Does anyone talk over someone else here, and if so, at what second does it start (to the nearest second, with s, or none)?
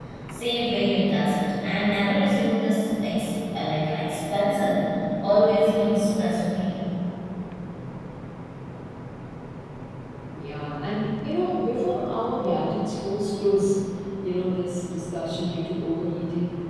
none